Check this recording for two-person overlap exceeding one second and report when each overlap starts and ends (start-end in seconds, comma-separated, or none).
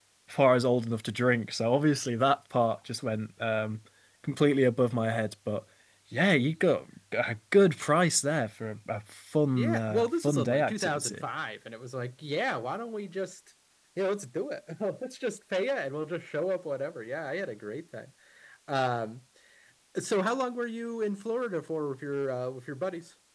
9.5-11.3